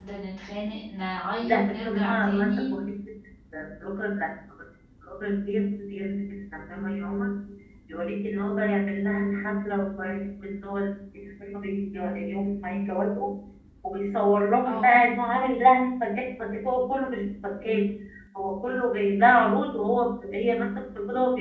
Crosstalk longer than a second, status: present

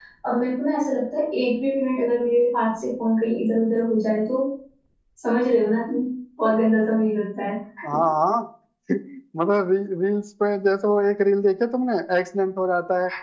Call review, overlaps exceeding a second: none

